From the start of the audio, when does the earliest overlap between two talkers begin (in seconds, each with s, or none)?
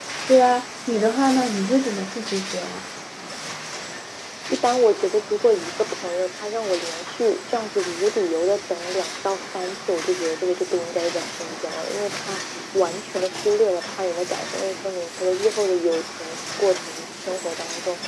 none